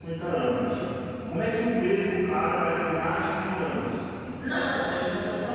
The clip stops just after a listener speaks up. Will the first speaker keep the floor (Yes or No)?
No